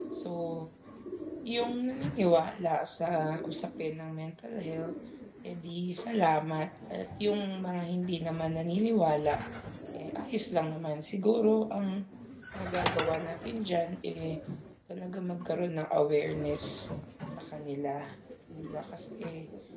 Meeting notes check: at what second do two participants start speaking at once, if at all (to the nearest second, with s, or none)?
none